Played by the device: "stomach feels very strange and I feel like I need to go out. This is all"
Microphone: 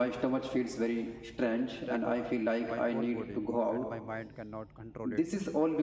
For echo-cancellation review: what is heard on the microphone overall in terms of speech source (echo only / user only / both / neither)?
both